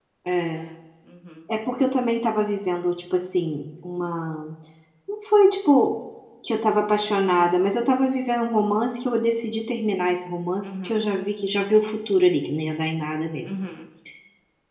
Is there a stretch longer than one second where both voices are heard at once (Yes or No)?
No